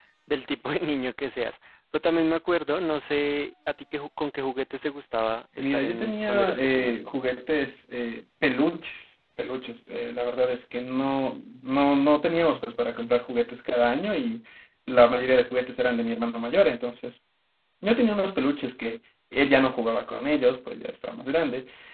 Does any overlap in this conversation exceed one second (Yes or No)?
Yes